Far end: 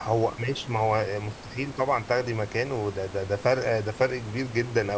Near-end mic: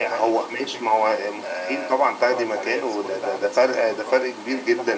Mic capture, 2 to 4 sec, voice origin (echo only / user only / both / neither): both